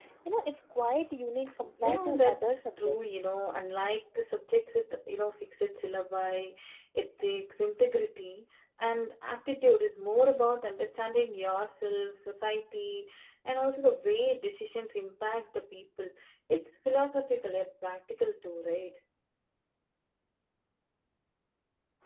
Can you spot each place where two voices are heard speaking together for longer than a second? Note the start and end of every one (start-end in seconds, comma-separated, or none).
1.8-3.2